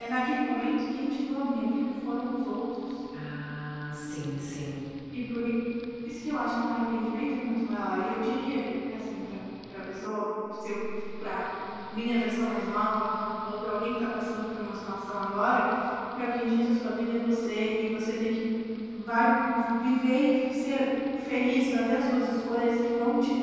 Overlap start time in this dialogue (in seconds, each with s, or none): none